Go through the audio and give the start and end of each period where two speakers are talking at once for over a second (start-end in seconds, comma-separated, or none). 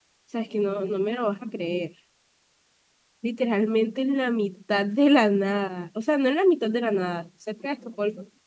none